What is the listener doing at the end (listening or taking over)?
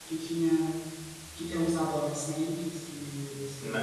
taking over